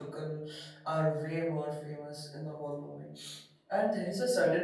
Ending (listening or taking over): listening